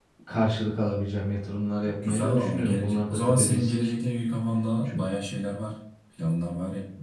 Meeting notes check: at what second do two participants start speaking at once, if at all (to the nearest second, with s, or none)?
2 s